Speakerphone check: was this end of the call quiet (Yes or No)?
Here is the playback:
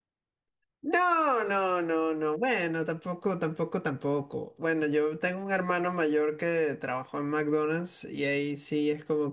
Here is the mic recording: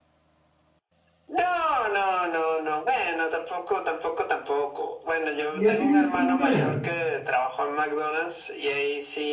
No